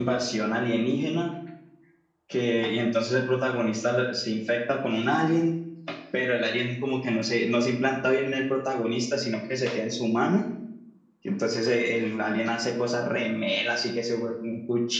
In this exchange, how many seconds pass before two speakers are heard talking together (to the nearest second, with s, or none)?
none